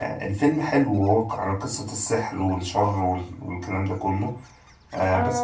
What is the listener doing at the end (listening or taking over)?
taking over